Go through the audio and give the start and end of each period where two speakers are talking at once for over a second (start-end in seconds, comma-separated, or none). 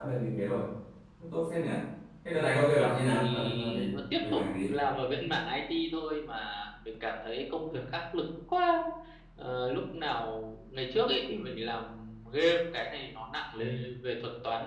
2.5-4.7